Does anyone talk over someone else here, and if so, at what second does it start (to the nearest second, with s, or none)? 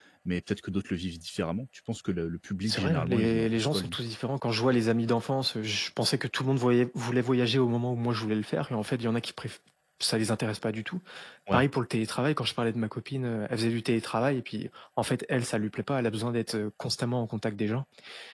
3 s